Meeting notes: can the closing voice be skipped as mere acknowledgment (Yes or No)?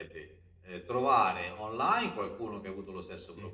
Yes